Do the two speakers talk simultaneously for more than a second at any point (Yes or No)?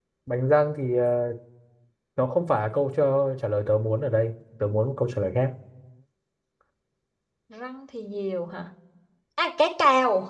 No